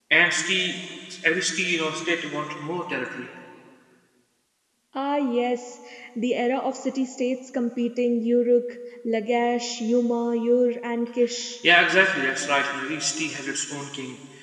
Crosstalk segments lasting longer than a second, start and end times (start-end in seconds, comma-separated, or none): none